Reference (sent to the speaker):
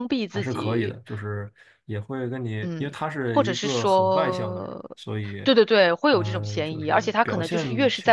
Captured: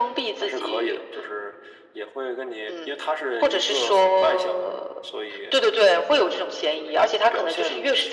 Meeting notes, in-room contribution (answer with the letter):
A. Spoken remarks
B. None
B